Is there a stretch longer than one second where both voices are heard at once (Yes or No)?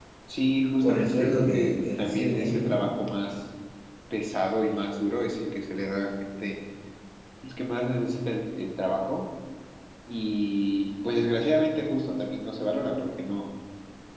Yes